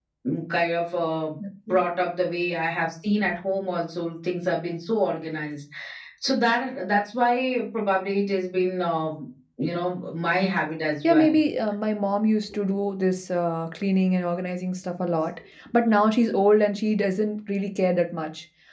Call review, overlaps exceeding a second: none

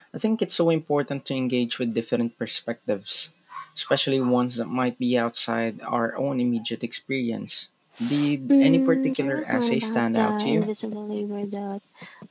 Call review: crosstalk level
present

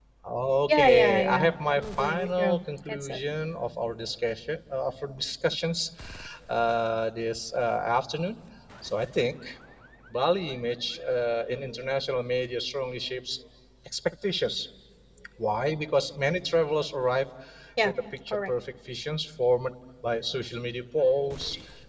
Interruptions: present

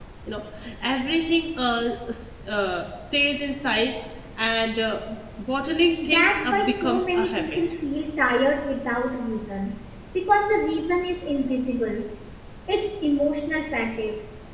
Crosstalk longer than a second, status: present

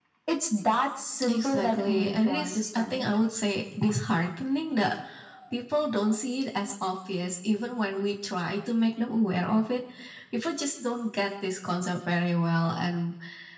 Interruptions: present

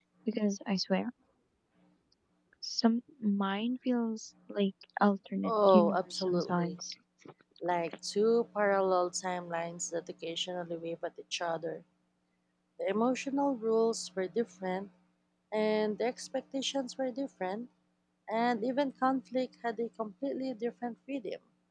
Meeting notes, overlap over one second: present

